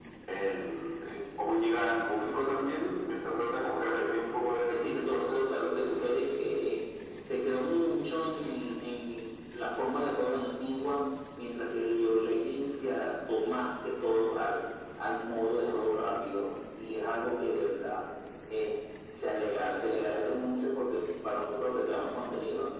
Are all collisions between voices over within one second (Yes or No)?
No